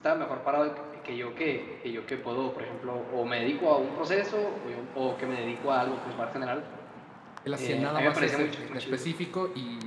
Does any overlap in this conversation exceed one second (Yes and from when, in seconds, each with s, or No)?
Yes, from 7.6 s